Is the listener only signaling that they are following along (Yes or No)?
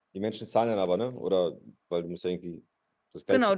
No